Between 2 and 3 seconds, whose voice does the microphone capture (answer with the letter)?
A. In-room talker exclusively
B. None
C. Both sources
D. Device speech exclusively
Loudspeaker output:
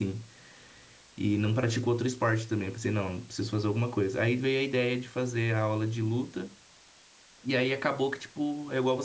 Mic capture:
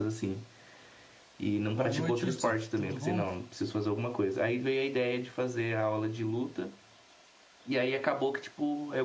C